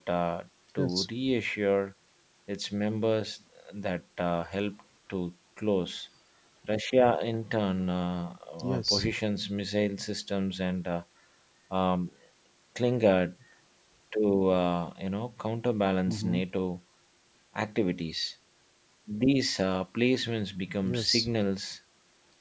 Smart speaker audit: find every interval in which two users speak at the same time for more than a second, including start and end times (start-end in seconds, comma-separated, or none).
none